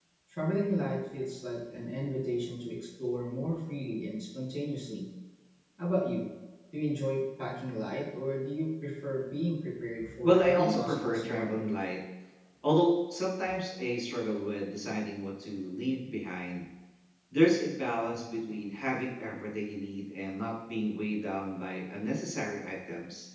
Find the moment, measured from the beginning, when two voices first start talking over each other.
10.2 s

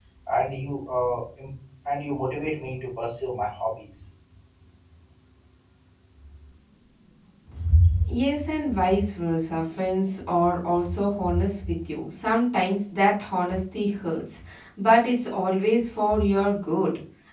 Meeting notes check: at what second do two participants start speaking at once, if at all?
none

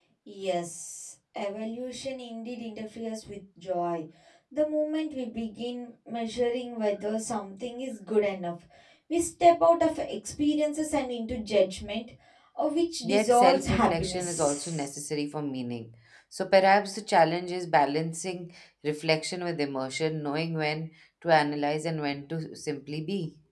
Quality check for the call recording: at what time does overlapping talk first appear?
13.0 s

